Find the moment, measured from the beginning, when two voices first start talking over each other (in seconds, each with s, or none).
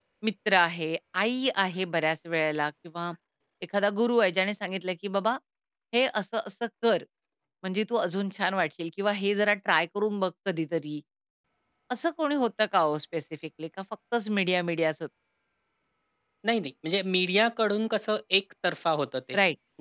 none